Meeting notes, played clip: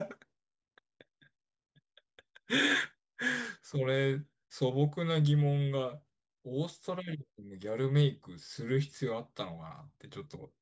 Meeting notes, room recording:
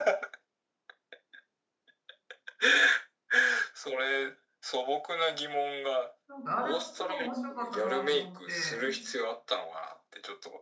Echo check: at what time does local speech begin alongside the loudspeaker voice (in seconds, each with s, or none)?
6.3 s